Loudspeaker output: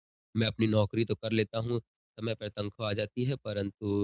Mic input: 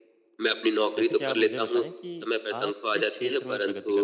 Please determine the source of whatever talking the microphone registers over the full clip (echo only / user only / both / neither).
both